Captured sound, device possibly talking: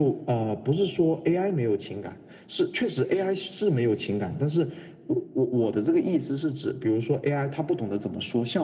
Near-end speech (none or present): none